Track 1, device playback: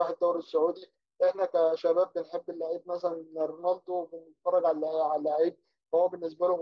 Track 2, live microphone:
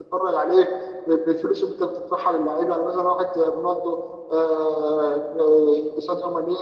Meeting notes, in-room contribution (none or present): present